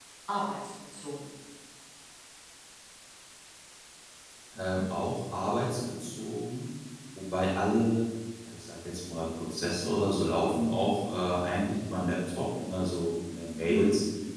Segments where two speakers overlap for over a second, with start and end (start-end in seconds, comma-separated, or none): none